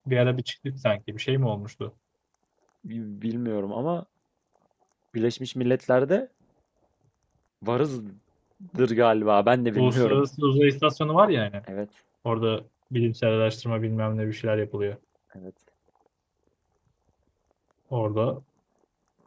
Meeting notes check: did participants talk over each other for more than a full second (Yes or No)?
No